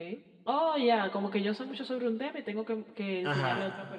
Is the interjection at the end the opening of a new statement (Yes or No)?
Yes